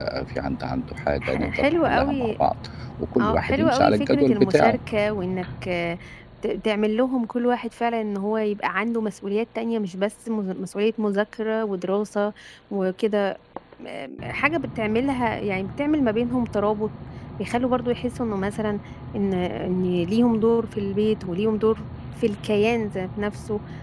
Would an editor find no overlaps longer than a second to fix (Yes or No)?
No